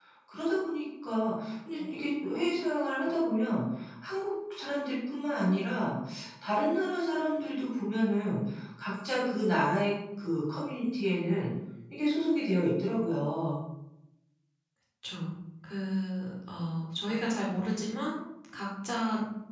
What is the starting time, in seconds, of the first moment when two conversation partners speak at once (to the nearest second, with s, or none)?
none